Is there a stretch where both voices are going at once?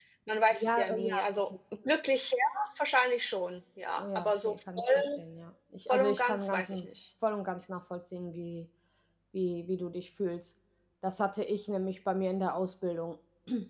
Yes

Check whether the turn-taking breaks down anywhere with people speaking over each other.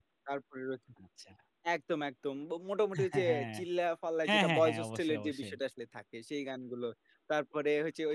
Yes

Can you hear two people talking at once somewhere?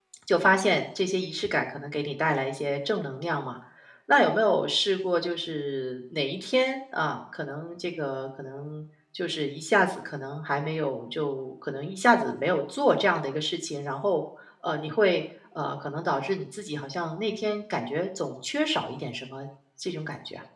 No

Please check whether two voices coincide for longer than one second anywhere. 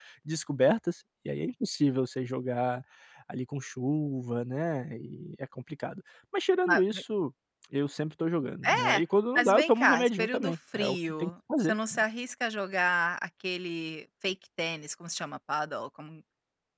Yes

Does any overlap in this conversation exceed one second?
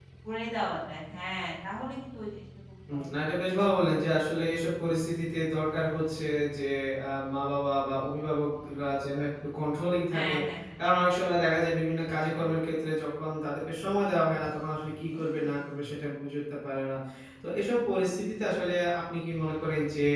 No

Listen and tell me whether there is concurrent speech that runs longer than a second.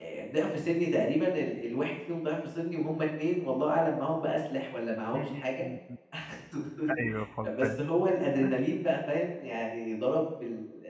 No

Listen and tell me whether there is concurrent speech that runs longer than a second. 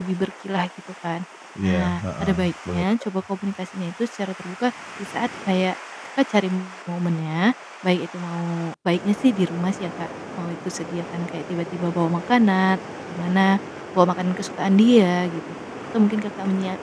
Yes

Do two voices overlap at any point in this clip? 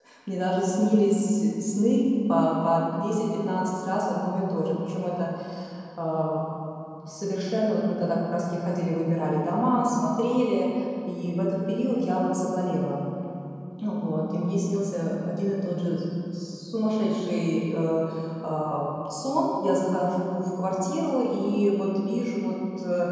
No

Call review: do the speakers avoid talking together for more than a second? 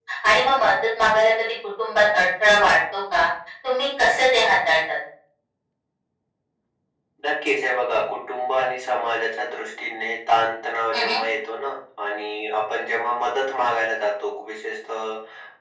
Yes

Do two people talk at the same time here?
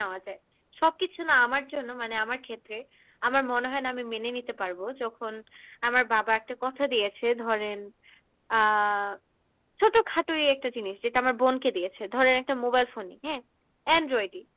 No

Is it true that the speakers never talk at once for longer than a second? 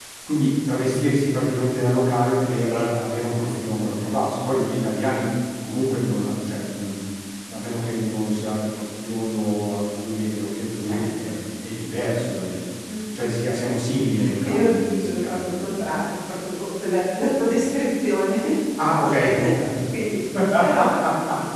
No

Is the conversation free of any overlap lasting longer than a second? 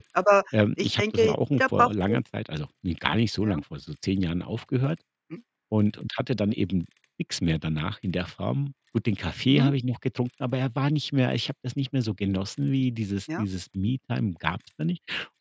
No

